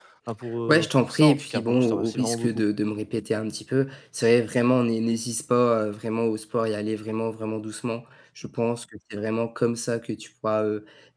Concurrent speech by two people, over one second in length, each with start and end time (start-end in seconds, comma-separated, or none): 0.7-2.6